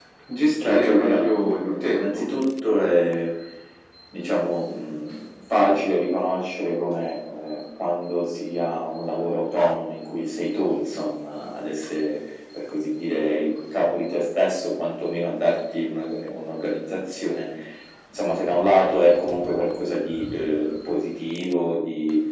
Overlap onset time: 1 s

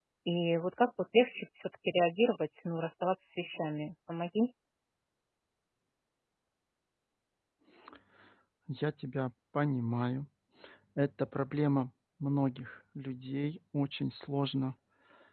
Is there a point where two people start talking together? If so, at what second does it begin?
none

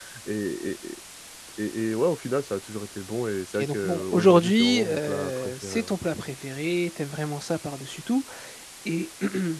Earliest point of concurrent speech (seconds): 4 s

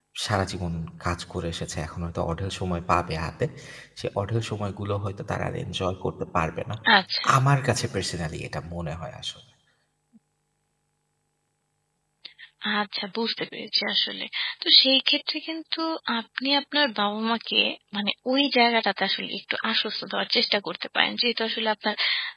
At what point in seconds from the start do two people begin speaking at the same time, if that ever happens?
none

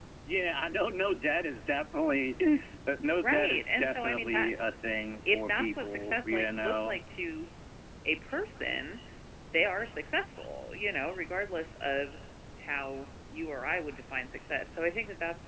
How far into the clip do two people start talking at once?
3 s

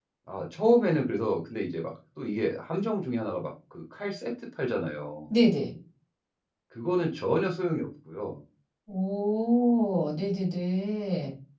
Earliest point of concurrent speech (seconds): none

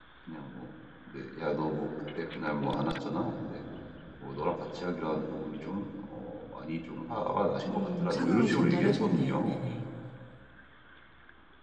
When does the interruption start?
8 s

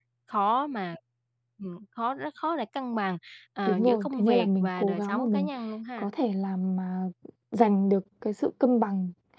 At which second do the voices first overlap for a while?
4 s

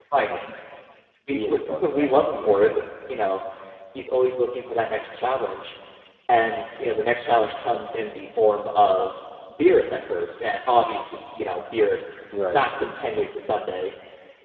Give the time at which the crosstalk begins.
1 s

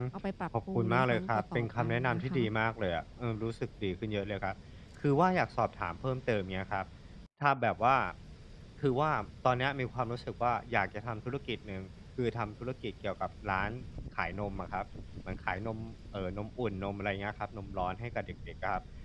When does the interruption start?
1 s

